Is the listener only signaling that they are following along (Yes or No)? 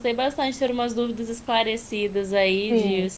No